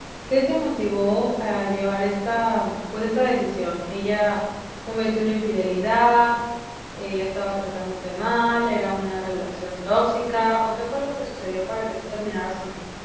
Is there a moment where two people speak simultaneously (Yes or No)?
No